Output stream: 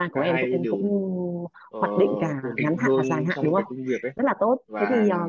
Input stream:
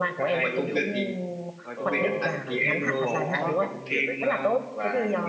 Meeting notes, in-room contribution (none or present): present